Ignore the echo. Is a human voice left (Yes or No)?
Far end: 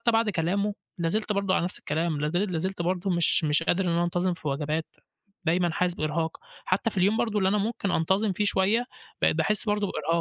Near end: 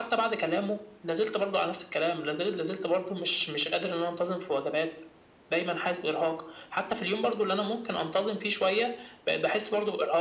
No